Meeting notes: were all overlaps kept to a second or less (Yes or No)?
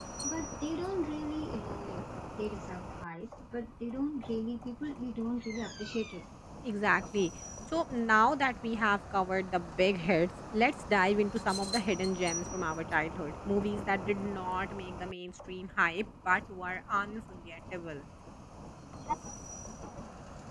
Yes